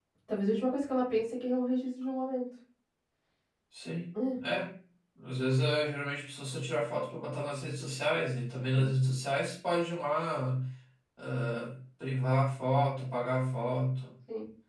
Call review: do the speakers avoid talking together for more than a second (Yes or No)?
Yes